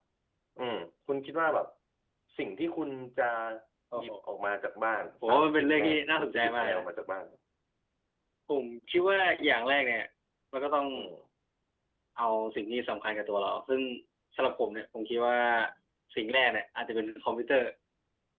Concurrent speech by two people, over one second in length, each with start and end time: 5.2-6.8

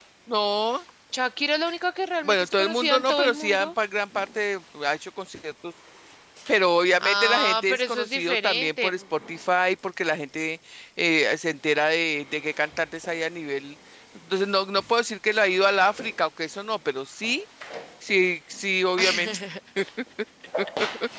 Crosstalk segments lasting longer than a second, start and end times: 2.2-3.7, 7.0-8.9

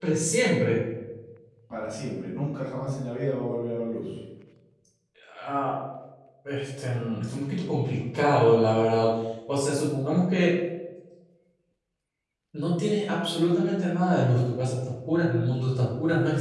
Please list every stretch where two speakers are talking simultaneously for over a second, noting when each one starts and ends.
none

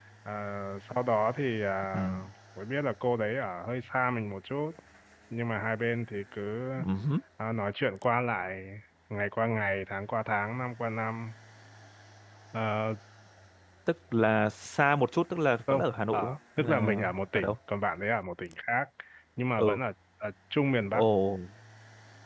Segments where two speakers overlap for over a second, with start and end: 16.1-17.6

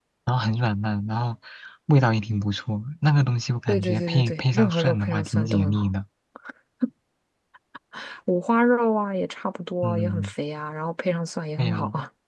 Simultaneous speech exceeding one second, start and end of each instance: 3.7-5.9

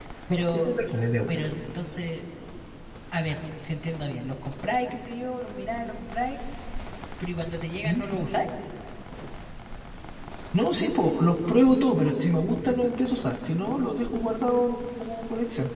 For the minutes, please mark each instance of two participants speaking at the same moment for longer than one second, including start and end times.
none

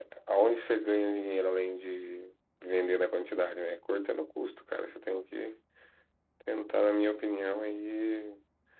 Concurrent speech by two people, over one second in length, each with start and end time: none

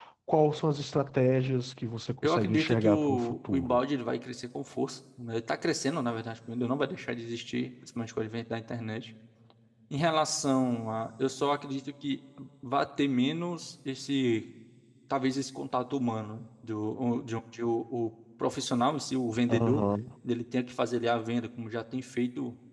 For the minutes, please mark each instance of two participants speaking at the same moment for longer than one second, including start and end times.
2.2-3.8

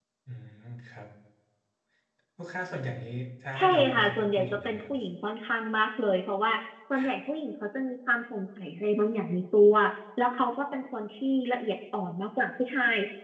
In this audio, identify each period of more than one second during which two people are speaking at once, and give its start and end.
3.6-4.9

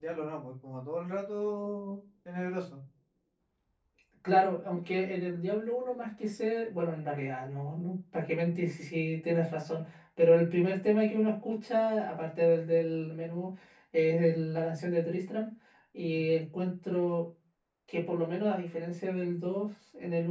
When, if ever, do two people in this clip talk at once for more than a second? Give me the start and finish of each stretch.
none

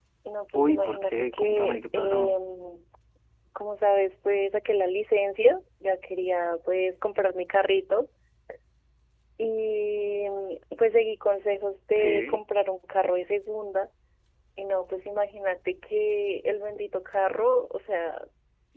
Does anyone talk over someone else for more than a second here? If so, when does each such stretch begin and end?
0.6-2.4

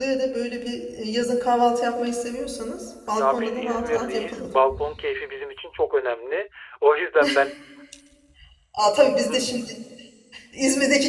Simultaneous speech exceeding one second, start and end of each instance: 3.1-4.4

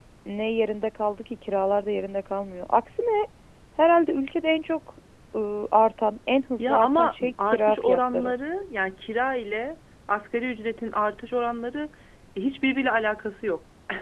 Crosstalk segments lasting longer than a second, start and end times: 6.6-8.3

